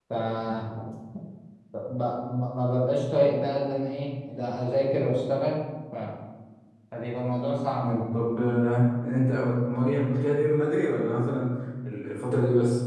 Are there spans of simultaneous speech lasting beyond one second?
No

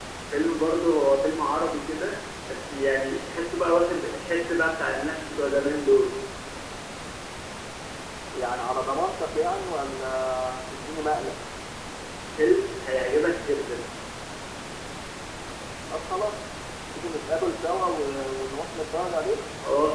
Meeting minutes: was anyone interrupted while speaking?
No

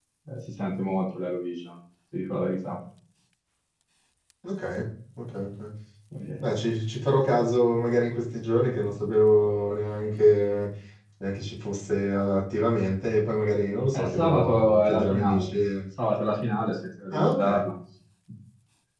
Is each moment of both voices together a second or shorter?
No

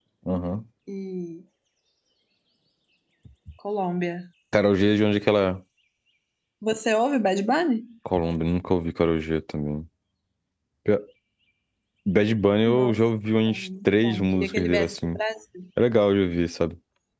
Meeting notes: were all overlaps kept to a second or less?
No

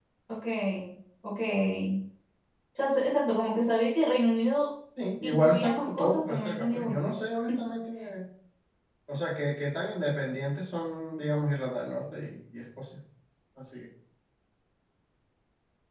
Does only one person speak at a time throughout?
No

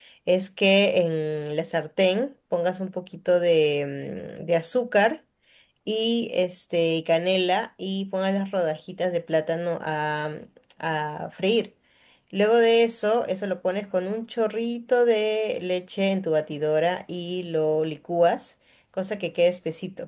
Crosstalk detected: No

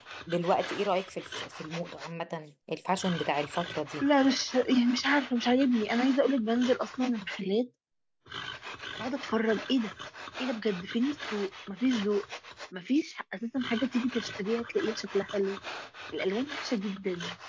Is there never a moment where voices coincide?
Yes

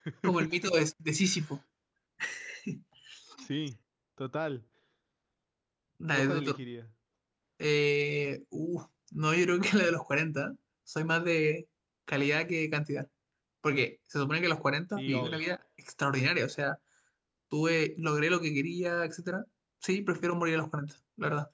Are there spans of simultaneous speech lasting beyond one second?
No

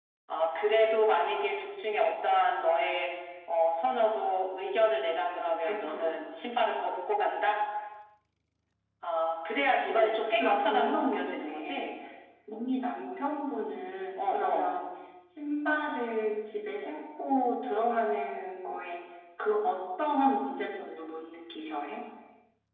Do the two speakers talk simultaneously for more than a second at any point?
Yes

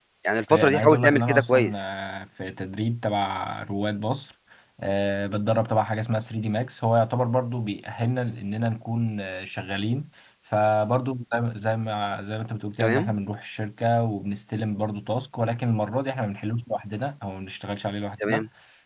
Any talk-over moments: Yes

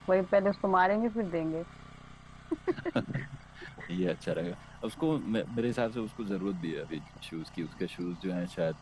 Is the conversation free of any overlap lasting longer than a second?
Yes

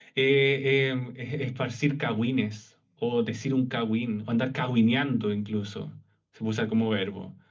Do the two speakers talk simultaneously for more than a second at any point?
No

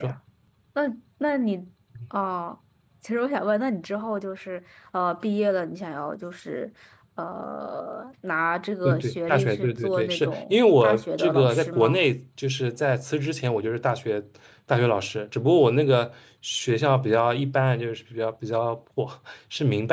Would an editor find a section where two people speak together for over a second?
Yes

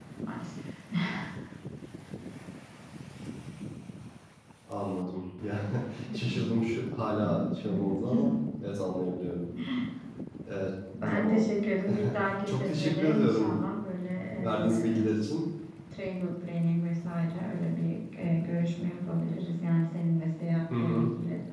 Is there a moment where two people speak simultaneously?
Yes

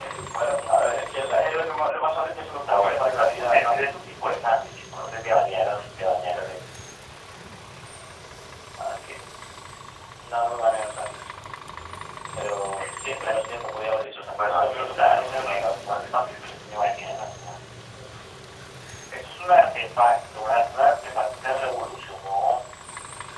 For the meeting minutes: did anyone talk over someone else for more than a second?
Yes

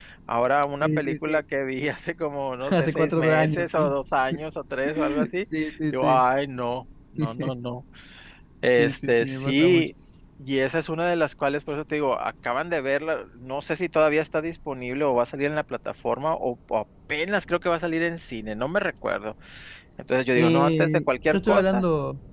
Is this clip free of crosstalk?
No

